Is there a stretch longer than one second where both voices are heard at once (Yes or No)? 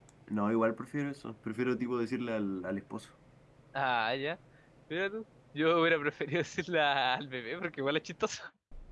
No